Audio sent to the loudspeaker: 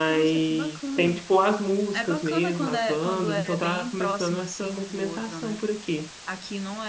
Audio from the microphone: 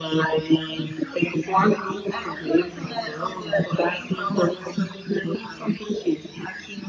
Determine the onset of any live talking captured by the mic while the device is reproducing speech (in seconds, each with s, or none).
none